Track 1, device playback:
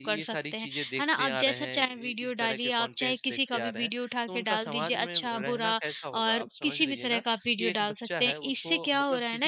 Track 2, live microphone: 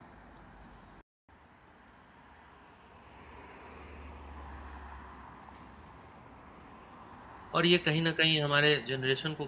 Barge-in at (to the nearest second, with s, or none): 8 s